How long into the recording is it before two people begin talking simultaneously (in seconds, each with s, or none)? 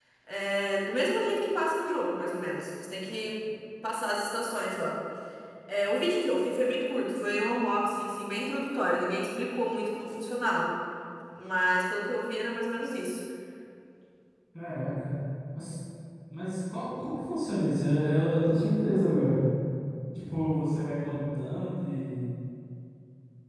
none